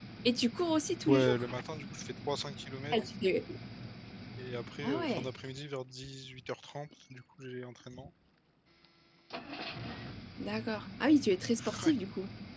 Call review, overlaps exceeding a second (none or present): none